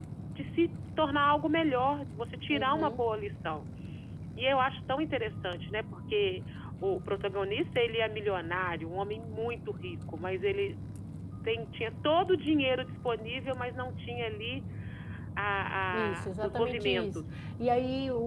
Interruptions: present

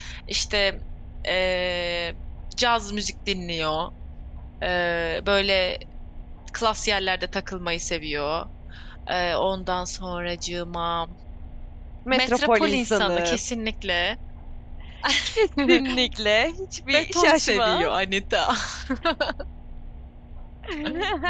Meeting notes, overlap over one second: present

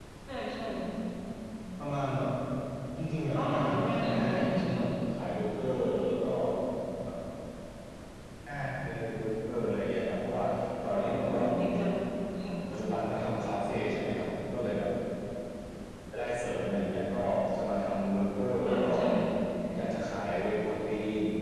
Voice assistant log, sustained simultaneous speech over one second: present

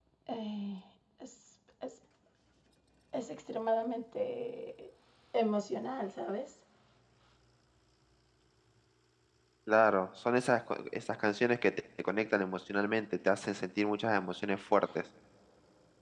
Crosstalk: none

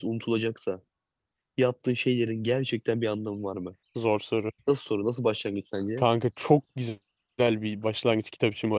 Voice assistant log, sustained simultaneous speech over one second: none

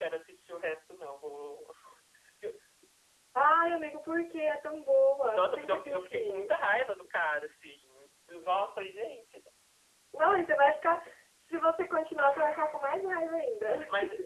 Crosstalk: present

